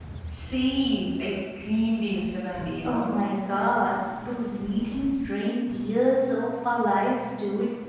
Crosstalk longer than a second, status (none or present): none